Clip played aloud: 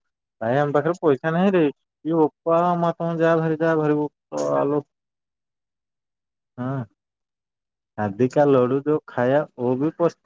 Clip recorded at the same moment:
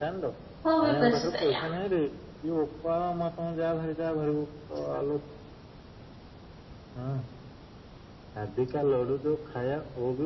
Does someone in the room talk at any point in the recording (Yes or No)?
Yes